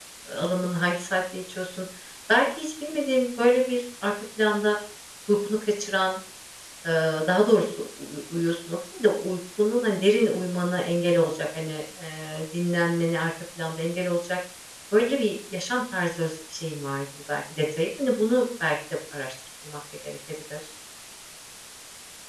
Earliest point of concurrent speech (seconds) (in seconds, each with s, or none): none